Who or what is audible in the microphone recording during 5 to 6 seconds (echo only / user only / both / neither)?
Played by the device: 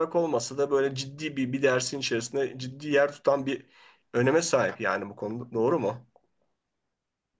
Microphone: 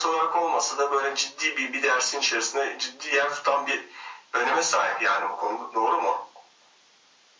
echo only